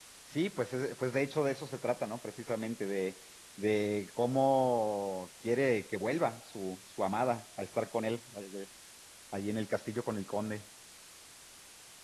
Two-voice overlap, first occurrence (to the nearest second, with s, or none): none